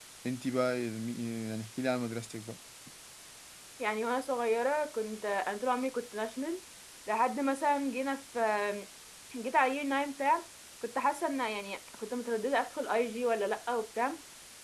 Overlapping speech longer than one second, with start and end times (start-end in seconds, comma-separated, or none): none